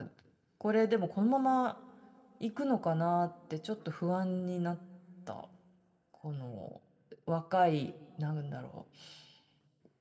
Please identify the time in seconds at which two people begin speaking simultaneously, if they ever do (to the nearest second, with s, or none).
none